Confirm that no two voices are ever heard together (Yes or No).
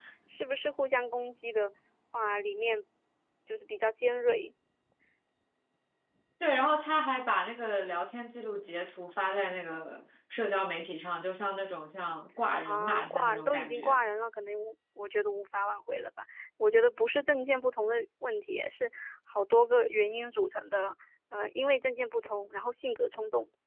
No